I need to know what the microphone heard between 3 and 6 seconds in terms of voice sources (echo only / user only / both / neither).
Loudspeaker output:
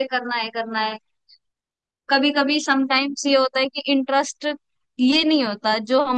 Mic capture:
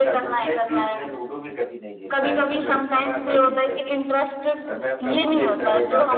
both